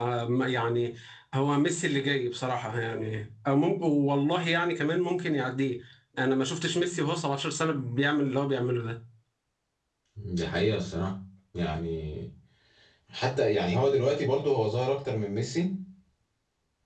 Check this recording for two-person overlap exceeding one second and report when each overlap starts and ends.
none

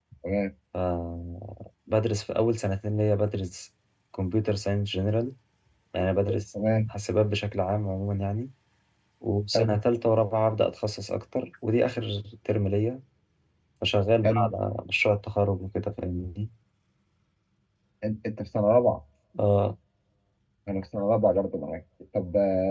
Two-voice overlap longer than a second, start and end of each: none

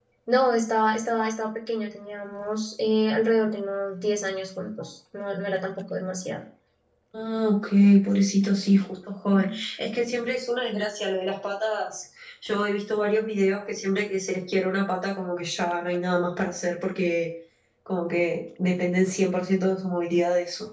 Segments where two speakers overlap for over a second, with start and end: none

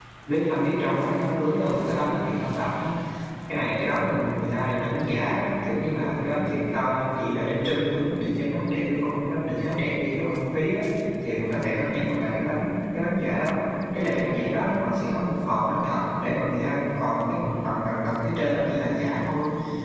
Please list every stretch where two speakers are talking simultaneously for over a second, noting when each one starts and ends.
none

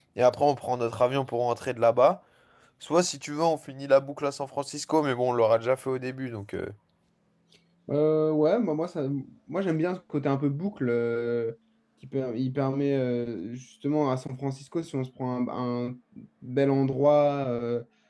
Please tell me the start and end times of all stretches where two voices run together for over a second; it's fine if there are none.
none

